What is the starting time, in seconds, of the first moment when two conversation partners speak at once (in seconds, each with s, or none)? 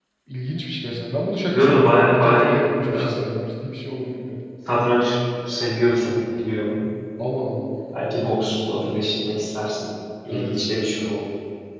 1.5 s